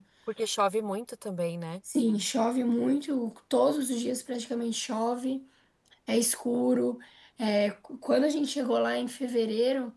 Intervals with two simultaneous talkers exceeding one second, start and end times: none

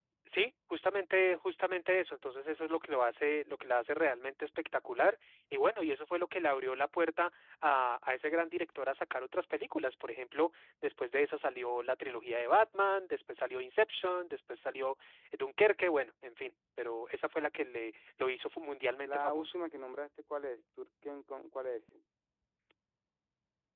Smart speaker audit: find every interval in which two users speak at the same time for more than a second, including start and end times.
none

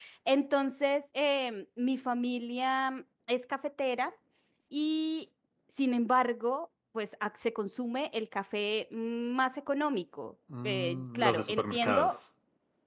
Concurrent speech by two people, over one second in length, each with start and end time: 10.6-12.2

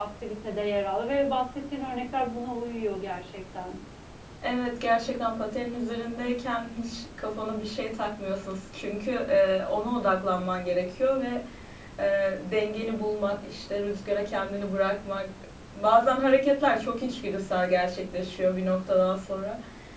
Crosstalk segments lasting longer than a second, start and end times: none

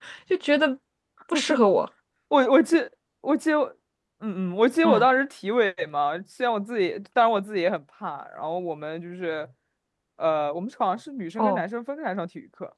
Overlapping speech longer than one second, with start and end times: none

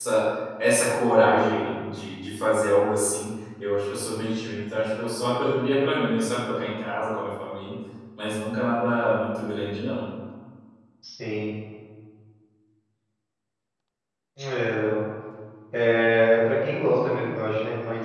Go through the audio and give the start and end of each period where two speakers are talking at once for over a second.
none

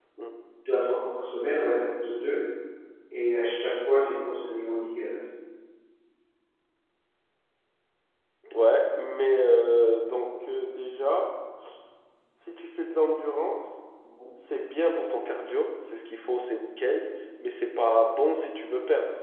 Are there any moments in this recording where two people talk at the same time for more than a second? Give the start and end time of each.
none

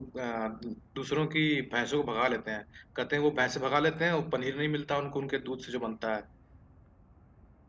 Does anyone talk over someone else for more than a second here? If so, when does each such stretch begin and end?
none

